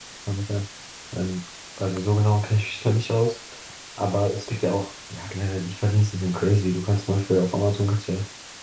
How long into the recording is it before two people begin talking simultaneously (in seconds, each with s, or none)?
none